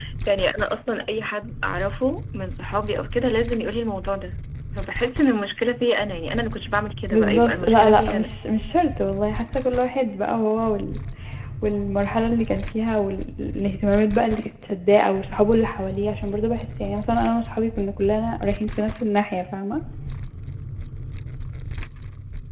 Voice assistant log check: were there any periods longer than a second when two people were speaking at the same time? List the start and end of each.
7.1-8.3

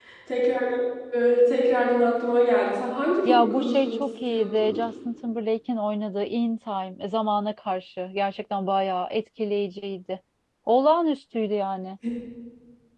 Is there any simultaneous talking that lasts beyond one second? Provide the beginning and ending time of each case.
3.2-4.8

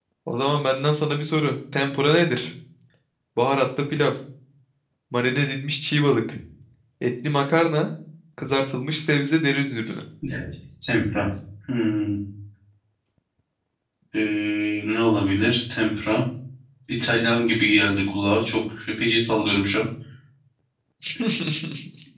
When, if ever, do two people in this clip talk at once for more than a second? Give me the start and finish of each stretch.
none

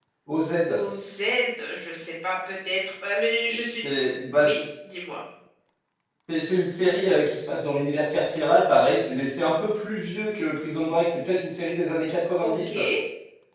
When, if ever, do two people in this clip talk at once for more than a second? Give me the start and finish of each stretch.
none

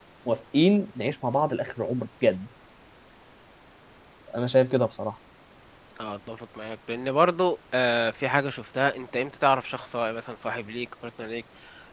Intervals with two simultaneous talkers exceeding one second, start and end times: none

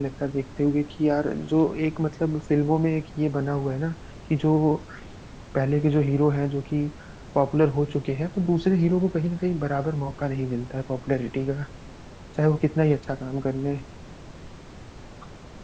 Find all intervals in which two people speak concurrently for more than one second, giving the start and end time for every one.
none

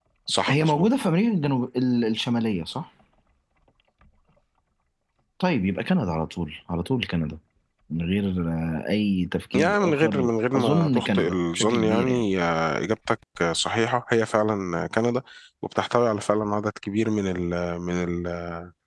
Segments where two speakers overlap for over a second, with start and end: 9.6-12.2

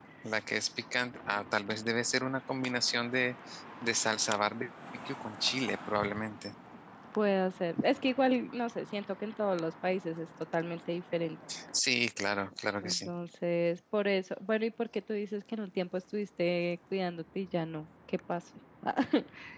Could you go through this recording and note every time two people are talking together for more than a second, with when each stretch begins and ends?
none

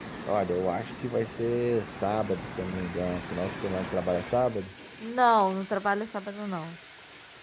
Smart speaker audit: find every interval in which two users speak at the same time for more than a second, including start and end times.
none

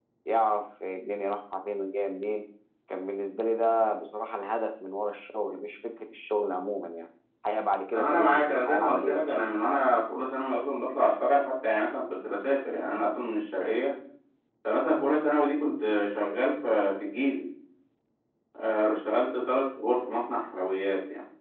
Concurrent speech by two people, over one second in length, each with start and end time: 7.9-9.8

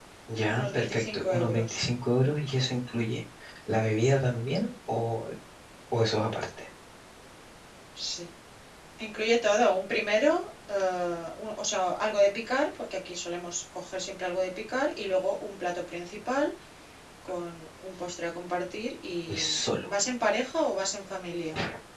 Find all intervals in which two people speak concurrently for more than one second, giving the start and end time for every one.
0.5-1.7

